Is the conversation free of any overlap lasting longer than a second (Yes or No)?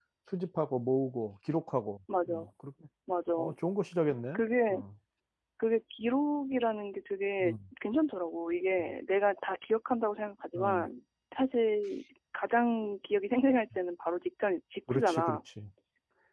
Yes